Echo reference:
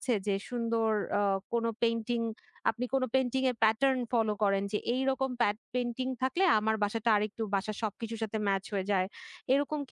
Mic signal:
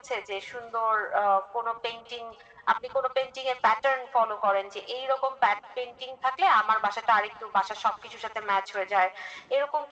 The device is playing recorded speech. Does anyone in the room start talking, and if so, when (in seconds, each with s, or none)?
none